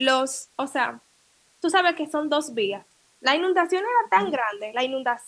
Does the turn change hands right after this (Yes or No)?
No